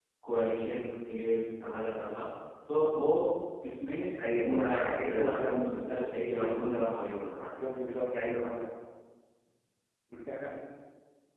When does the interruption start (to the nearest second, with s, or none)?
5 s